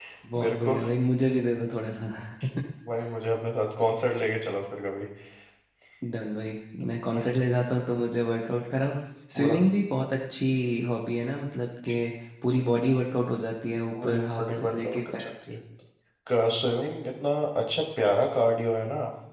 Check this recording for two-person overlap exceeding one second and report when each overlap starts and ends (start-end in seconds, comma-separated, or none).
14.0-15.3